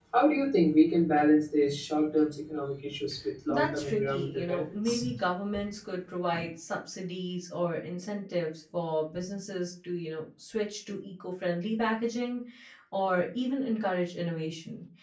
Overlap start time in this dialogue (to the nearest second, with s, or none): 3 s